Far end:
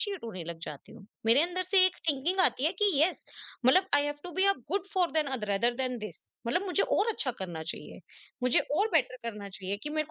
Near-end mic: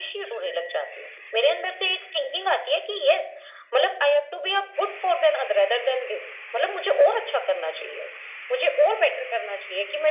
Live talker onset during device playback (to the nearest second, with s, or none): none